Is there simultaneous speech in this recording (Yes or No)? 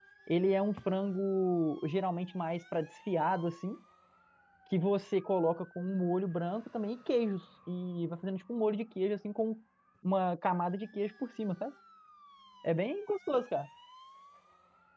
No